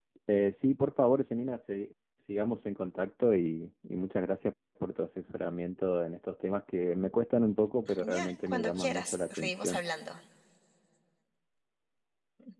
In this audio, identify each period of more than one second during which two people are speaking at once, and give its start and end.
8.0-9.8

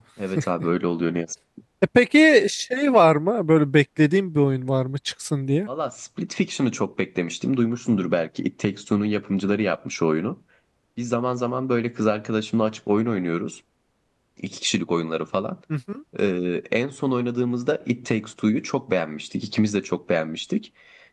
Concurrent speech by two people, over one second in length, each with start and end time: none

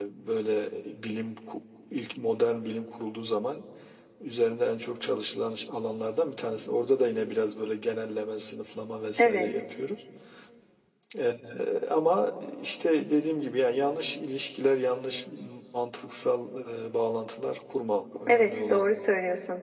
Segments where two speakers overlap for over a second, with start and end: none

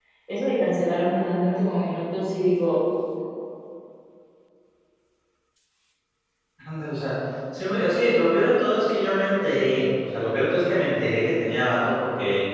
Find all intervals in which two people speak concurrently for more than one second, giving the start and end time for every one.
none

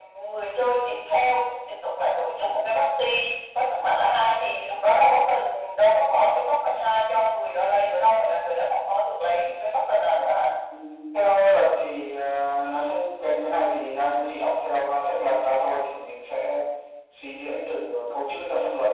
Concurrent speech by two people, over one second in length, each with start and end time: none

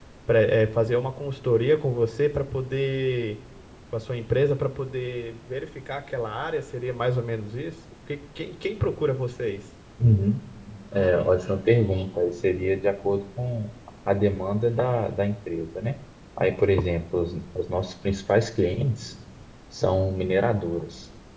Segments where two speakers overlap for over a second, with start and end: none

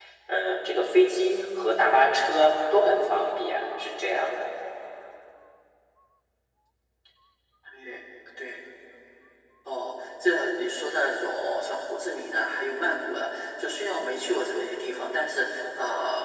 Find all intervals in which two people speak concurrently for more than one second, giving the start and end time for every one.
none

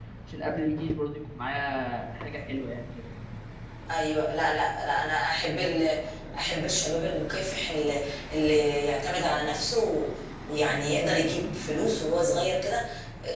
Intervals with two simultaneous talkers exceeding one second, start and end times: none

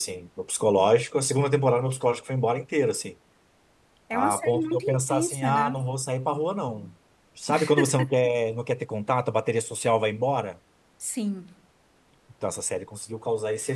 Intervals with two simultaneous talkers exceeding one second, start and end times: 4.1-5.7

